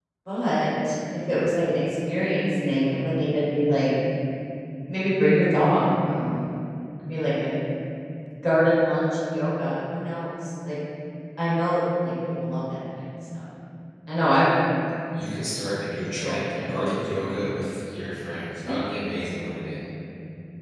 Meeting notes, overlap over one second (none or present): present